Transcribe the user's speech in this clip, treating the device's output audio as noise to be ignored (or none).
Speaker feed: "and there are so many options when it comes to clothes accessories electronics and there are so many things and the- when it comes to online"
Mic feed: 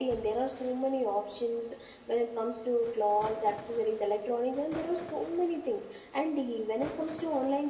none